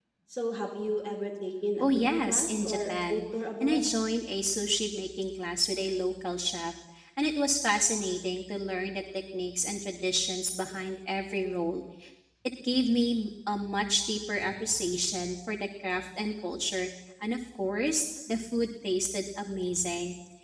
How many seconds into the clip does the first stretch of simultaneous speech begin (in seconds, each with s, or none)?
1.8 s